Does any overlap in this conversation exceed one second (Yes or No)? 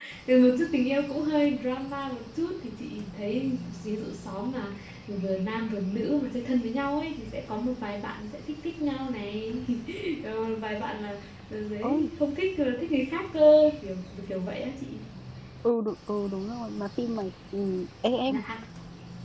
No